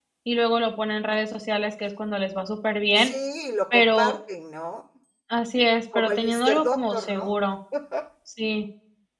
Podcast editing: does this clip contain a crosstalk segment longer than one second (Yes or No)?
Yes